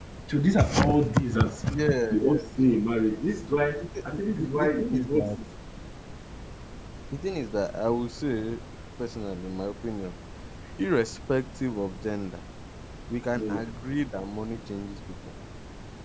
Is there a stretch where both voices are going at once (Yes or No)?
Yes